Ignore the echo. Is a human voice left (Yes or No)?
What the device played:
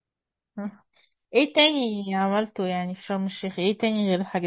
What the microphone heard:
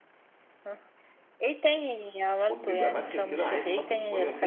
Yes